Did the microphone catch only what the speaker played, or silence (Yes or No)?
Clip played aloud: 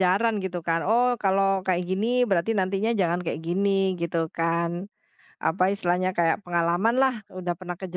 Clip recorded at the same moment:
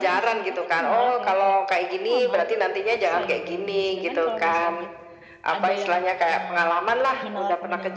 No